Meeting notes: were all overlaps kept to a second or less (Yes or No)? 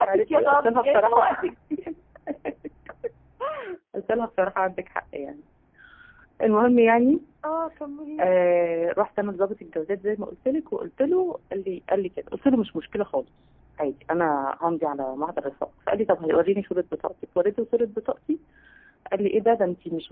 No